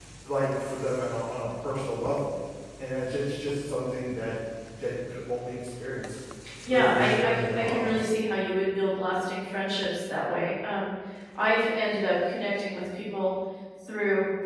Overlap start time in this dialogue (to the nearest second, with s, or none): 7 s